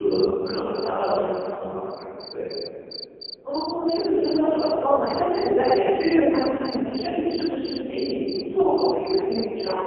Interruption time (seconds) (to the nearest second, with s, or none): none